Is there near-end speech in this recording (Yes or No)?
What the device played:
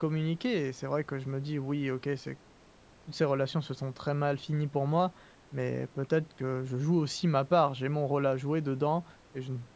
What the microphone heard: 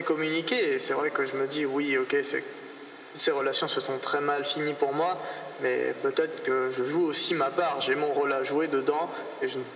No